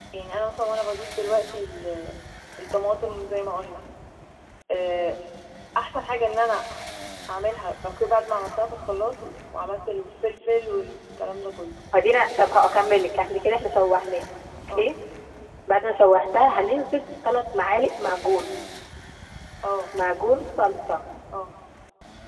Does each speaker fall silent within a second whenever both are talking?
Yes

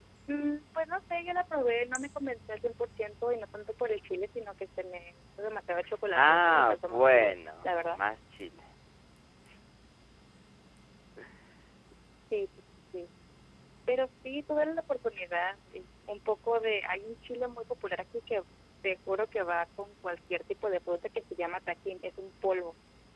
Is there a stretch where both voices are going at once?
Yes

